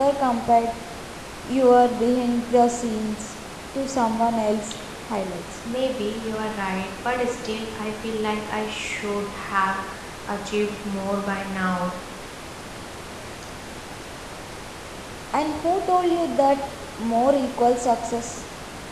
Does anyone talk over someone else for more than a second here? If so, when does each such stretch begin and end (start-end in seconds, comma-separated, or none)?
none